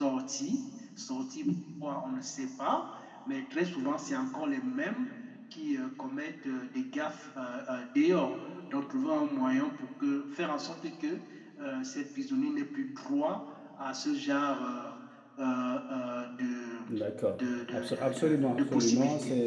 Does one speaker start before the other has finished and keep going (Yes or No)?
Yes